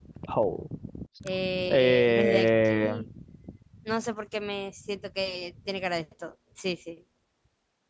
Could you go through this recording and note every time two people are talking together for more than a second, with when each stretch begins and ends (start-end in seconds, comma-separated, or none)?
1.7-2.9